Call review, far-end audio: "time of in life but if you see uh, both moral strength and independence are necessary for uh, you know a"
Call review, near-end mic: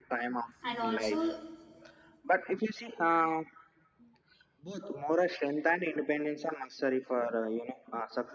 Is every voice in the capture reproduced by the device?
No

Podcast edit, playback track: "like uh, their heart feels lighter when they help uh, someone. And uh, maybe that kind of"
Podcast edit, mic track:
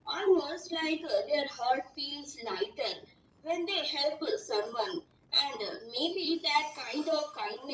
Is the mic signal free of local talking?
Yes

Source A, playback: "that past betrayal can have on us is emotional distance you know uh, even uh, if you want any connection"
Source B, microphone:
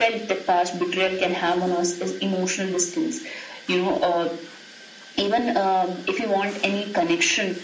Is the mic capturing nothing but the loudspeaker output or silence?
Yes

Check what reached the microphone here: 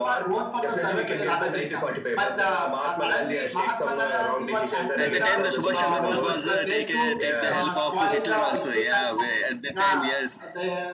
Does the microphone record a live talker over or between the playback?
Yes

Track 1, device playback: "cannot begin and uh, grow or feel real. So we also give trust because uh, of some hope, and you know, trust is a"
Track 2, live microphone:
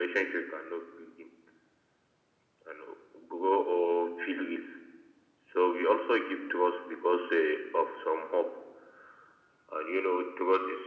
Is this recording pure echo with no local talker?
Yes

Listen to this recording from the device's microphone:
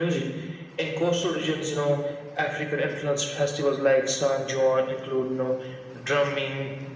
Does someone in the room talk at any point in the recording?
No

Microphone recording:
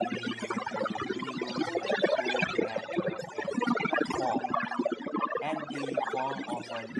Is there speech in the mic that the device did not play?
Yes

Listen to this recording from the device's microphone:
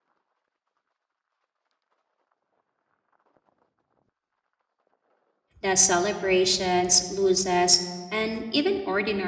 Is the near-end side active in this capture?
Yes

